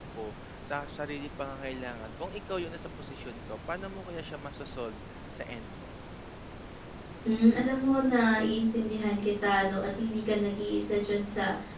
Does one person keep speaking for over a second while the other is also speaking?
No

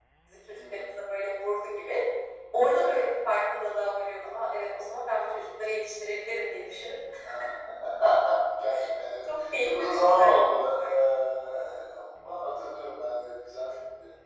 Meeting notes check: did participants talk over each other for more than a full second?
Yes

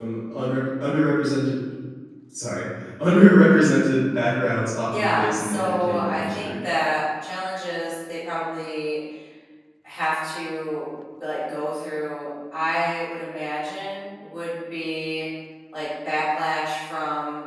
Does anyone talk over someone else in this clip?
Yes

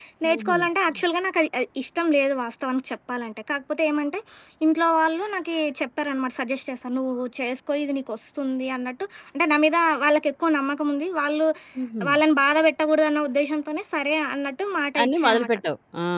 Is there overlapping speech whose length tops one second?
No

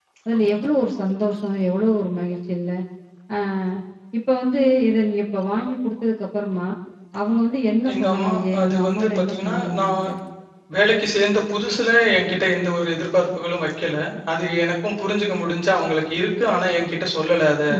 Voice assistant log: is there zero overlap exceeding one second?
No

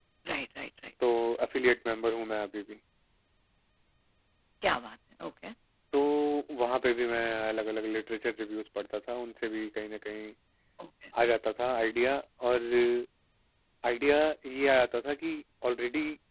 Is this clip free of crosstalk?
Yes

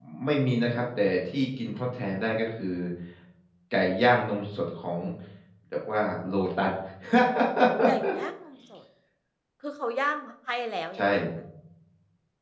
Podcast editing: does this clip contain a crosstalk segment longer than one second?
No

